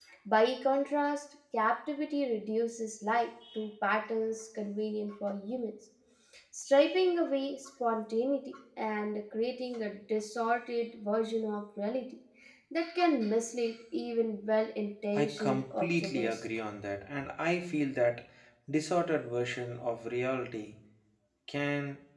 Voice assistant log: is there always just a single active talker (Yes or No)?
No